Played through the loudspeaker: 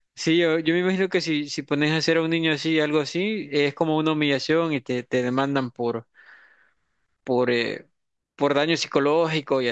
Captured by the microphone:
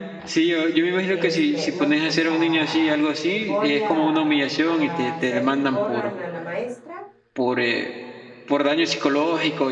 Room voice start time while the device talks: 1.1 s

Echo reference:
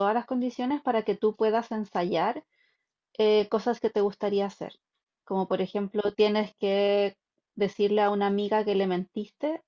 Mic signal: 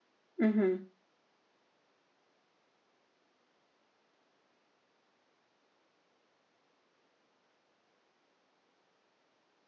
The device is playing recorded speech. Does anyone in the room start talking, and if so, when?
0.4 s

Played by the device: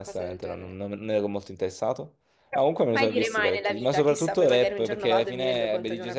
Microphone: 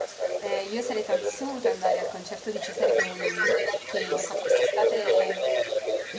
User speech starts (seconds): 0.4 s

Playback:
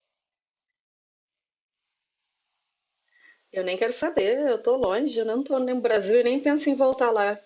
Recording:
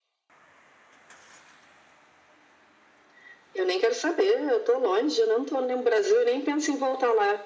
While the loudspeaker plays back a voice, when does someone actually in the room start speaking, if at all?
none

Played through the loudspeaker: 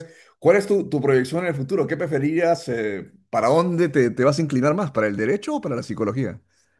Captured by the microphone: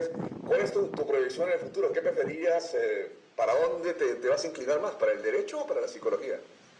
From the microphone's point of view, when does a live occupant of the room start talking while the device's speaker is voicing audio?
none

